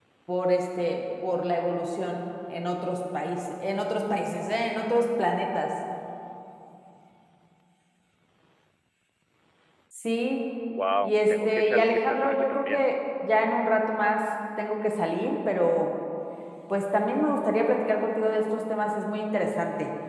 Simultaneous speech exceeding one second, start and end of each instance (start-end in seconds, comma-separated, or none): 11.0-12.9